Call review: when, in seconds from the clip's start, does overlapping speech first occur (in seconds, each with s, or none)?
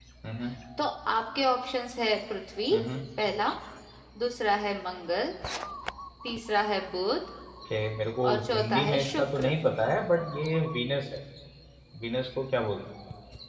8.2 s